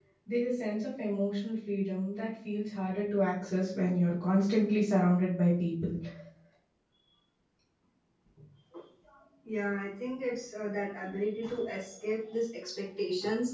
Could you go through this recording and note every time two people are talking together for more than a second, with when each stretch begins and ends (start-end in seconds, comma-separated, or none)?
none